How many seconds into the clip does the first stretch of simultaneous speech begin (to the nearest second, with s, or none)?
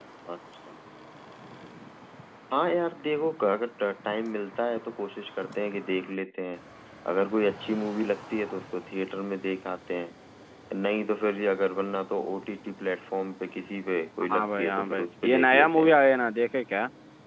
14 s